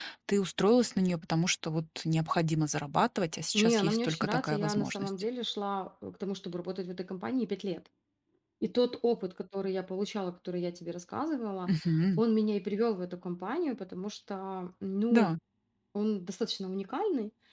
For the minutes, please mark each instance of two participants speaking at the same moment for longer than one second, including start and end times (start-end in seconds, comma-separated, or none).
3.5-5.1